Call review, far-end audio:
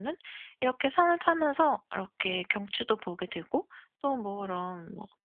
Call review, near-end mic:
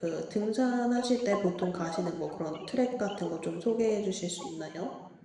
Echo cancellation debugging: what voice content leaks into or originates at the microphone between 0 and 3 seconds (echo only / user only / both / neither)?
both